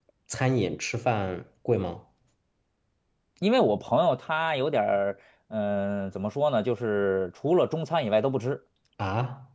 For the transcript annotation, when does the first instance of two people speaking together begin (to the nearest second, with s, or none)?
none